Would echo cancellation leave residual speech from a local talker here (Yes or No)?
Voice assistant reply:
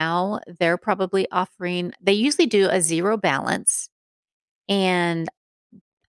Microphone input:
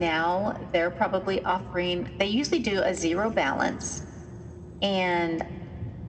No